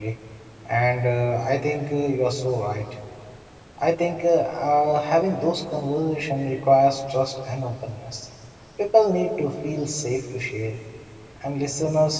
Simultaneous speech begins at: none

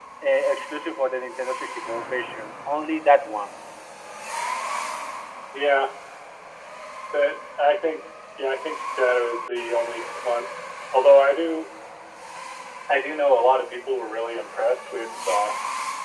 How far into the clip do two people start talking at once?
none

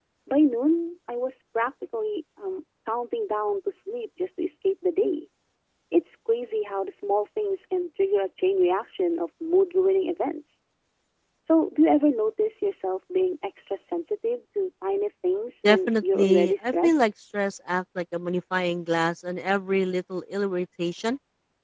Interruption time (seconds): 16 s

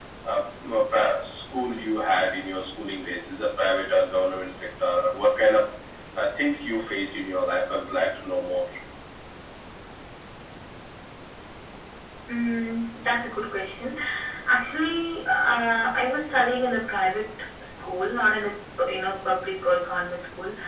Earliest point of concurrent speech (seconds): none

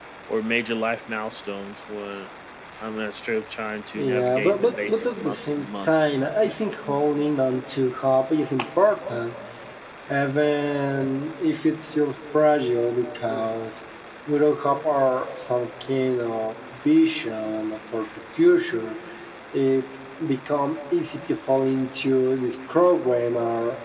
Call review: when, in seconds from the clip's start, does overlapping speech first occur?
4 s

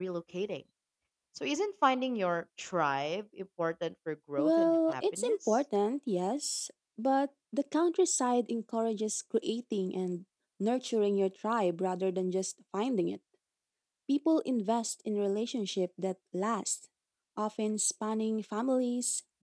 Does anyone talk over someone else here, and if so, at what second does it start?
4 s

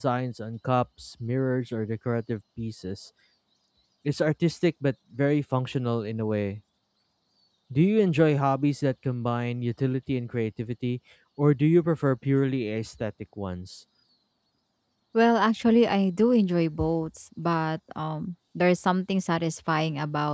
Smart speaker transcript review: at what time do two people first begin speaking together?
none

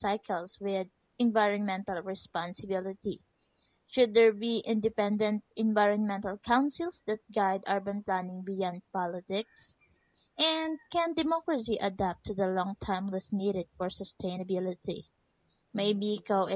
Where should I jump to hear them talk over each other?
none

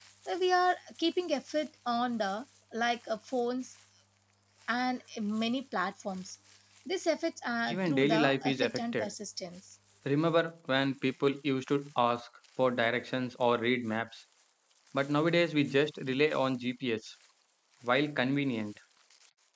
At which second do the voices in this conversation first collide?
8 s

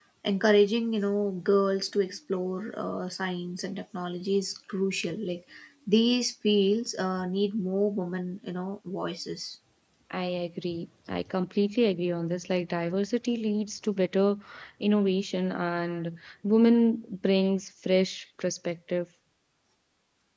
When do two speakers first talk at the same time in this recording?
none

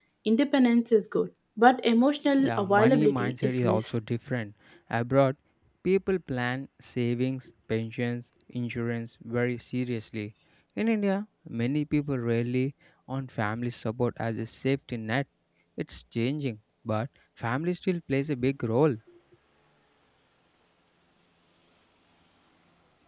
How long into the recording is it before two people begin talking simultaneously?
2 s

